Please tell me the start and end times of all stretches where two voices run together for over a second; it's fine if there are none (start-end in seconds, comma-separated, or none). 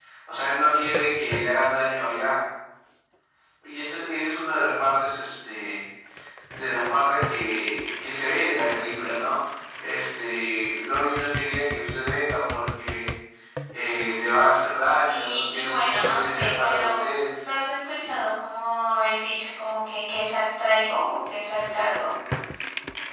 15.1-17.0